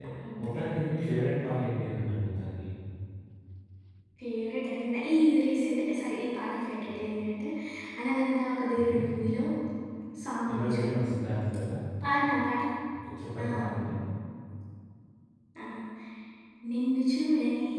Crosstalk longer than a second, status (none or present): none